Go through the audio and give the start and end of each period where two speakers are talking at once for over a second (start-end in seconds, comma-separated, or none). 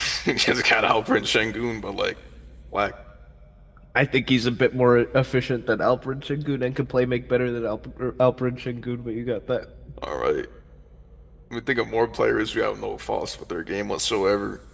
none